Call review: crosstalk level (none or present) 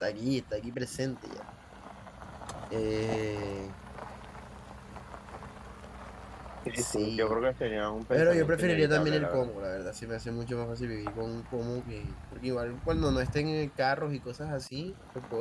present